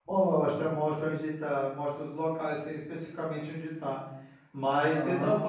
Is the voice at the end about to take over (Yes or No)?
No